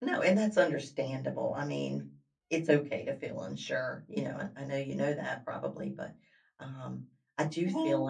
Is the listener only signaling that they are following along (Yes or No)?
Yes